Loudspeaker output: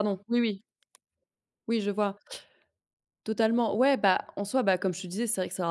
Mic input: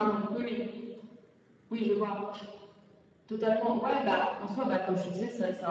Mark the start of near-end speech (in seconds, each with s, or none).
none